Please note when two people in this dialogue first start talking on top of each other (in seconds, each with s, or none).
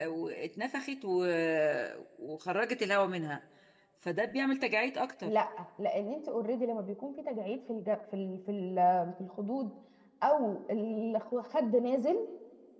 none